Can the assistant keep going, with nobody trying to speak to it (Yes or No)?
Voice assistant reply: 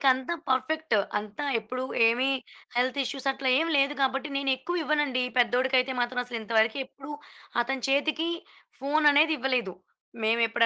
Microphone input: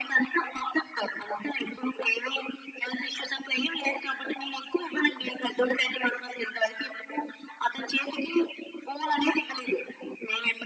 Yes